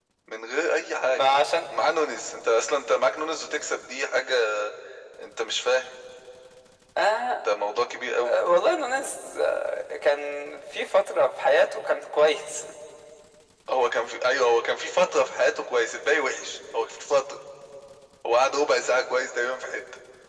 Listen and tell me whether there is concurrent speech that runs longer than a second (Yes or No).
No